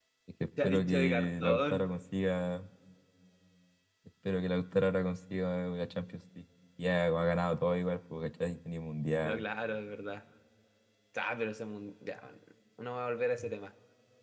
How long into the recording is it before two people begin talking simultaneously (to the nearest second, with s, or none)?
1 s